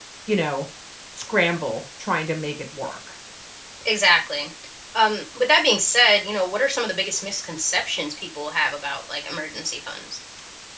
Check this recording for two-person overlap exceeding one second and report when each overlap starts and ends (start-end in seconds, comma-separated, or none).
none